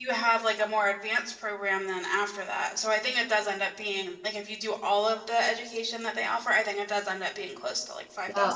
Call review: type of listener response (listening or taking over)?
taking over